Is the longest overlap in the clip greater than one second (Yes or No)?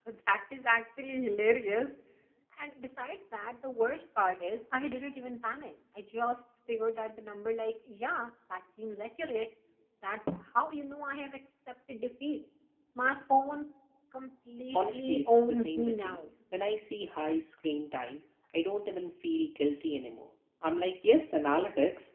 Yes